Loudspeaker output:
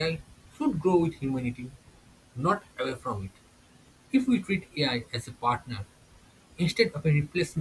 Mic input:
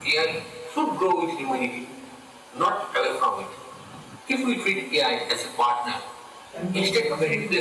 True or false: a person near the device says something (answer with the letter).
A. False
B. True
B